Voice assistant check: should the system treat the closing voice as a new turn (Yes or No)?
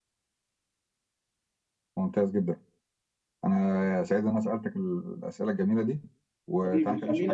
Yes